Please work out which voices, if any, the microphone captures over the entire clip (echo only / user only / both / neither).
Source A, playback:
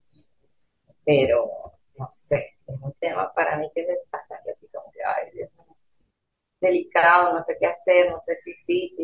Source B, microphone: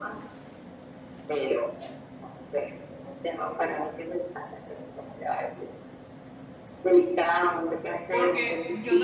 both